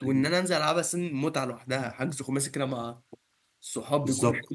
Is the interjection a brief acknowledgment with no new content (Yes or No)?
No